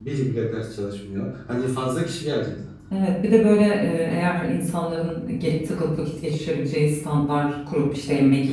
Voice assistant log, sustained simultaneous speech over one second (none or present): none